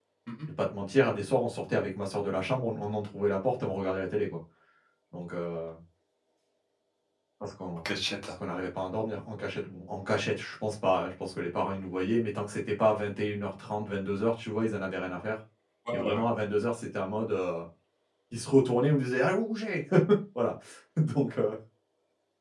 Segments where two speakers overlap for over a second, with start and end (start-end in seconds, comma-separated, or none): none